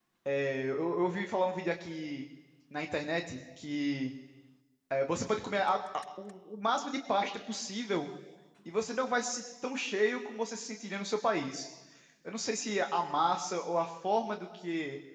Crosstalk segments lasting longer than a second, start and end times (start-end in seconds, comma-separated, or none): none